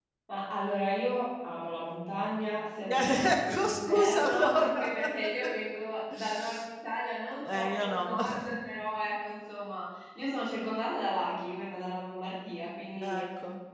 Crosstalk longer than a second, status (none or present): present